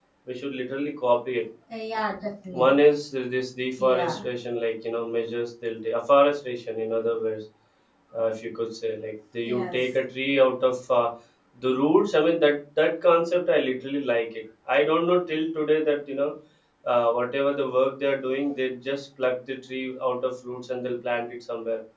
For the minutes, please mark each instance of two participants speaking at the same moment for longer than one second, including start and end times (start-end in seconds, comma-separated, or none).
none